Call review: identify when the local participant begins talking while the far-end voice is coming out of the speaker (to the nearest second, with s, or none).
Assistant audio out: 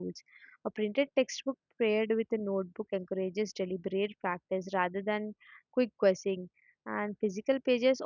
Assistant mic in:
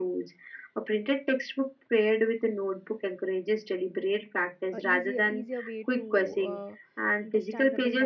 5 s